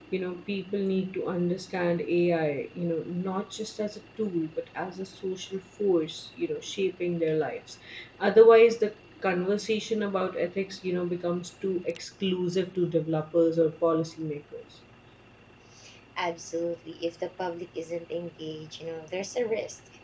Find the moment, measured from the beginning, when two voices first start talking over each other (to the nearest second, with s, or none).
none